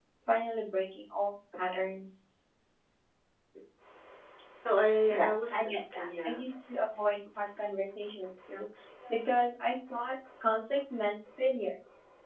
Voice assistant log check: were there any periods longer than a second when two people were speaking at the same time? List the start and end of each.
5.1-6.4

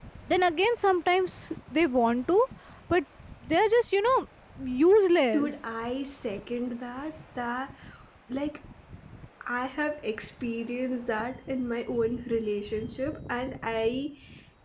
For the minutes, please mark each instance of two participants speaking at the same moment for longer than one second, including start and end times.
none

